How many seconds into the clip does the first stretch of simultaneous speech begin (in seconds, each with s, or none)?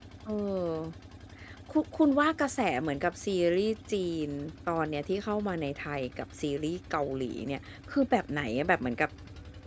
none